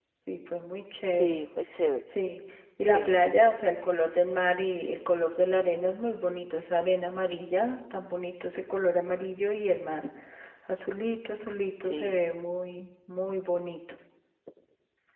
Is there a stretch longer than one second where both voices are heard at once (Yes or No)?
No